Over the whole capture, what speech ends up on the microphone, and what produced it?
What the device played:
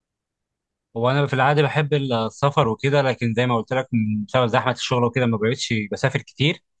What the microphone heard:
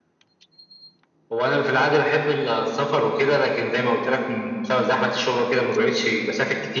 echo only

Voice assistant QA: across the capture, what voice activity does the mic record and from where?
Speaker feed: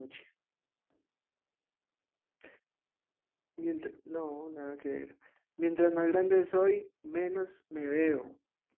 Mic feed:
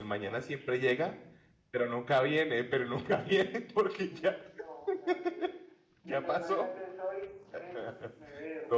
both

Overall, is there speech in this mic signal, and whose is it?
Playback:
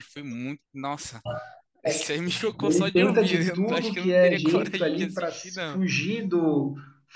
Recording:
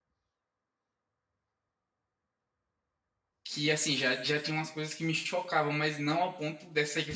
user only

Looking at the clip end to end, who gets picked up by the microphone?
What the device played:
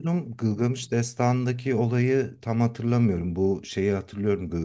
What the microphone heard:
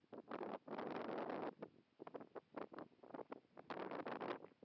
neither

